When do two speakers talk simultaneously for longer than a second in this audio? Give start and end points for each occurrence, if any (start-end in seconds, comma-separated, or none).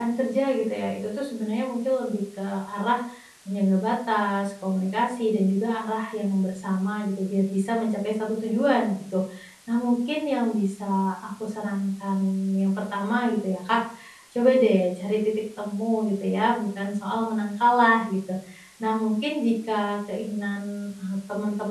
none